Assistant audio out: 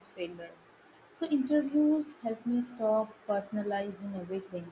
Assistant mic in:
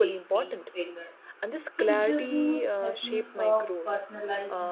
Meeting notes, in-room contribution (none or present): present